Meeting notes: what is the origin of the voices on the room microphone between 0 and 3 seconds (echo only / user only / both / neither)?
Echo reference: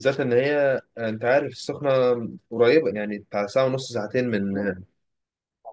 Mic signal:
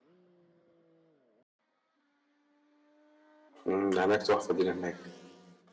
neither